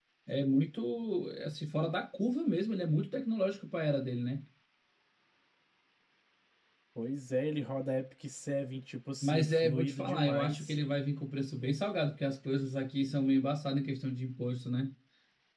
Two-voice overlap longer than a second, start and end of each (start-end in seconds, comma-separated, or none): 9.2-10.8